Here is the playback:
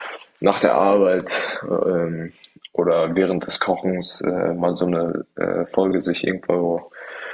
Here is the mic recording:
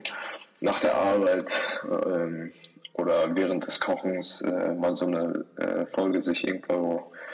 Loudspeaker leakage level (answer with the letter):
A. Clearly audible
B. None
A